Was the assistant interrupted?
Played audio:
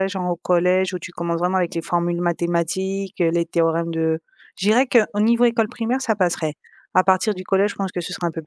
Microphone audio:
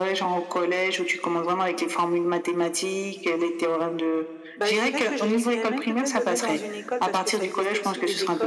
Yes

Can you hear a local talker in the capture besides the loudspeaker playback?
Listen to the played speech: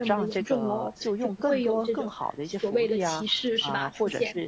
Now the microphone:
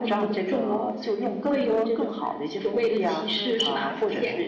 Yes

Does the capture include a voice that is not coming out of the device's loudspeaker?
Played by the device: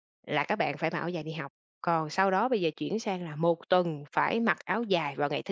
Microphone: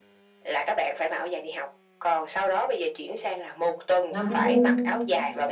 Yes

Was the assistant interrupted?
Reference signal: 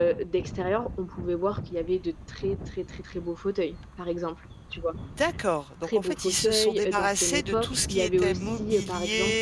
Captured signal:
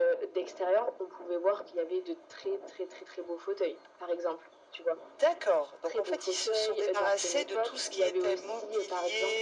No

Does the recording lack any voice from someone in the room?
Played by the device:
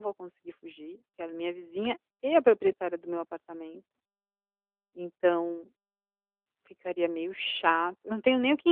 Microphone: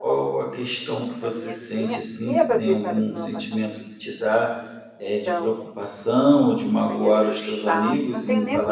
No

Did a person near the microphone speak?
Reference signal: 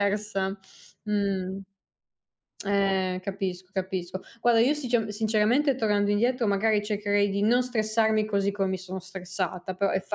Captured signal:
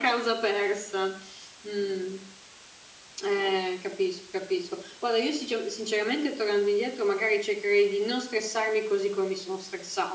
No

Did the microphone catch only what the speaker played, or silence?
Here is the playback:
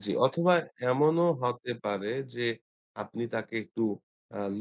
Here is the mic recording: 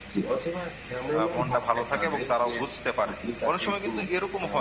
No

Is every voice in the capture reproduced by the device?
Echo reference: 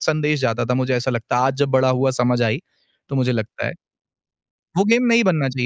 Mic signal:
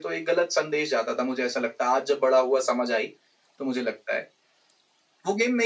Yes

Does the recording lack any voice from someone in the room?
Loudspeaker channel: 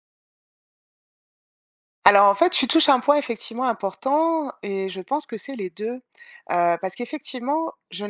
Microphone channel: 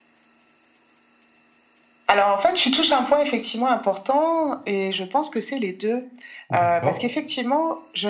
No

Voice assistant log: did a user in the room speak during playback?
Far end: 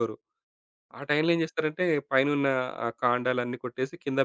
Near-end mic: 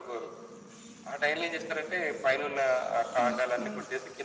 Yes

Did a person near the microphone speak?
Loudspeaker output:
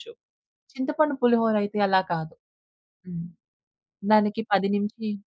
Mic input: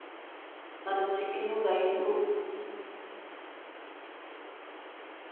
Yes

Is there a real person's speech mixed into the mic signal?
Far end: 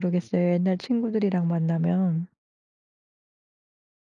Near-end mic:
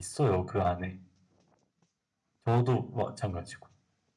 Yes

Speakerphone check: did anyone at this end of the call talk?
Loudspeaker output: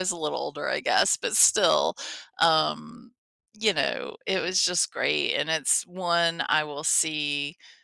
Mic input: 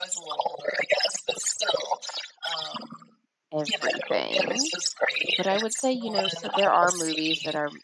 Yes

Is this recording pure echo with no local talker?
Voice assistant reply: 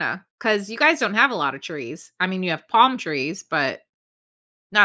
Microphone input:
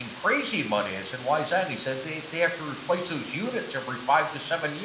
No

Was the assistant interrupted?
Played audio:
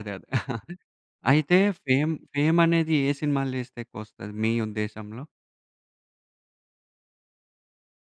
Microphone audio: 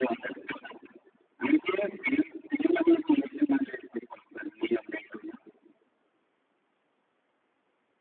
No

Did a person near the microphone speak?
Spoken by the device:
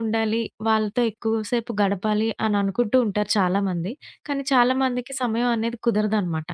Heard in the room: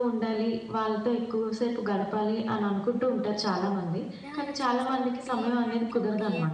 Yes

